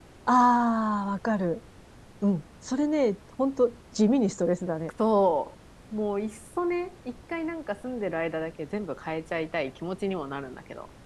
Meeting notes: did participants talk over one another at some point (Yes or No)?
No